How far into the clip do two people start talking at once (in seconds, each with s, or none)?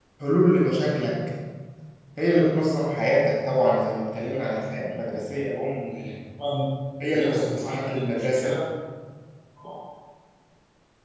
7.1 s